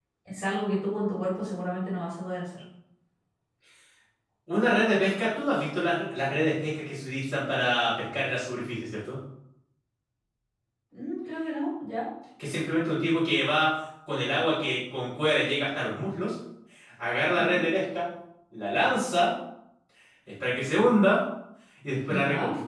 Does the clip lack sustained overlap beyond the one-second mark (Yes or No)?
Yes